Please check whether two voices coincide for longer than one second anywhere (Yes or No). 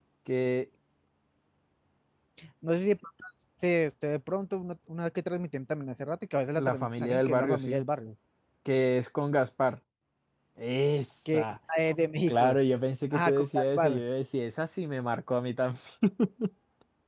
Yes